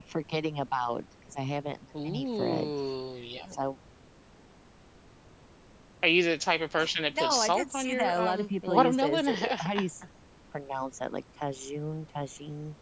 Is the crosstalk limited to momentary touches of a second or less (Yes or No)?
No